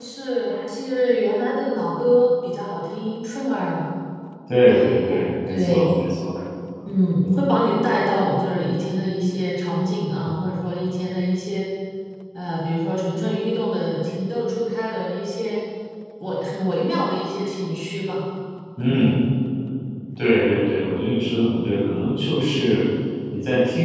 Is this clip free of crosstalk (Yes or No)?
No